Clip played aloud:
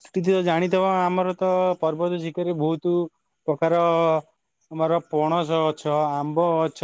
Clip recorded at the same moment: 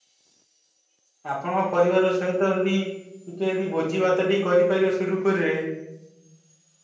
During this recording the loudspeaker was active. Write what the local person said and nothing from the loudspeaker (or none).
ଆପଣଙ୍କ ପରିବାର ସହିତ ଯଦି ଟିକେ ଯଦି ଭୋଜି ଭାତଟି କରିପାରିବ ସୁରୁଖୁରୁରେ